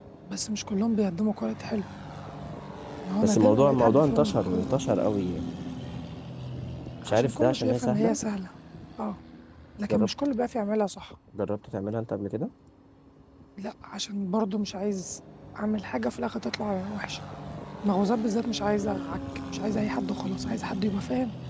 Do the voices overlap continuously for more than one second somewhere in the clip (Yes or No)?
Yes